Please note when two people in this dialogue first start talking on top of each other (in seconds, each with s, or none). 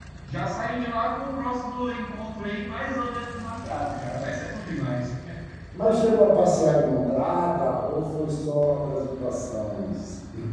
none